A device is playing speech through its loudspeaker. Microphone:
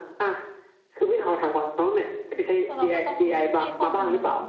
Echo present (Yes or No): Yes